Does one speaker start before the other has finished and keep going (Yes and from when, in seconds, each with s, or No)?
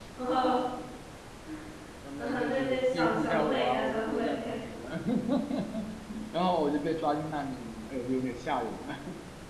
Yes, from 2.2 s